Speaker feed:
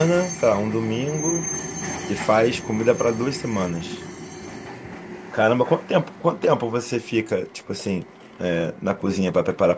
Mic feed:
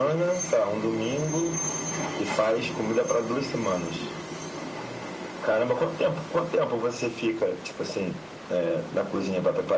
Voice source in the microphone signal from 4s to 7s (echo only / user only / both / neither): echo only